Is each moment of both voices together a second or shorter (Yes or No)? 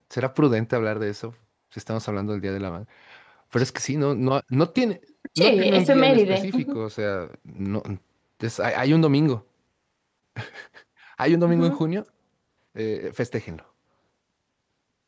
No